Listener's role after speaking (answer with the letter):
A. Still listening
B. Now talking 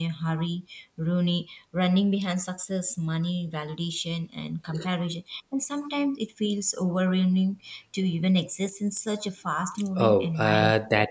B